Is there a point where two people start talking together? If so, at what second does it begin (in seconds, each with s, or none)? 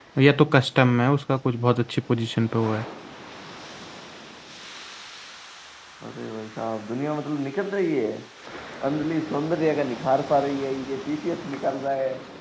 none